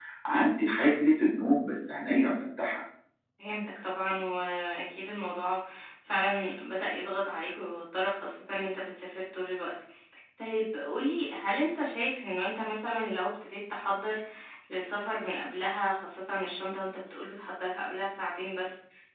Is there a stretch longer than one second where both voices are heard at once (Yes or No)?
No